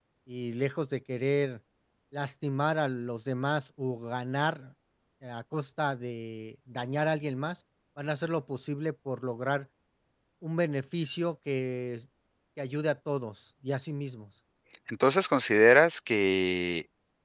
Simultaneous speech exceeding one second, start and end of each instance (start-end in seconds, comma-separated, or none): none